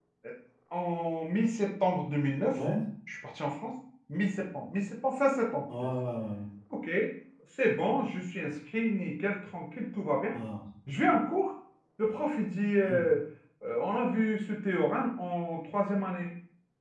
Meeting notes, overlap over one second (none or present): none